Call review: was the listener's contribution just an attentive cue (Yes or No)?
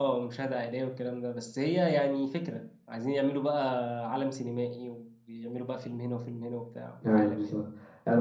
No